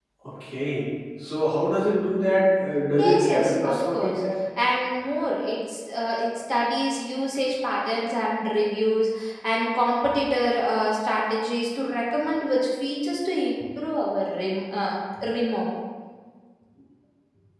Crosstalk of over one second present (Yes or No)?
Yes